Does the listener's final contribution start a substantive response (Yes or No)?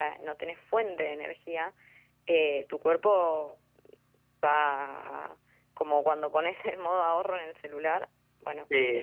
Yes